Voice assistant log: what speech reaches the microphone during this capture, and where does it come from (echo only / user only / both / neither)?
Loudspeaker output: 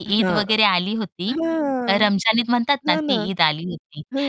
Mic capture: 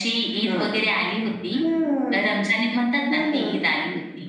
echo only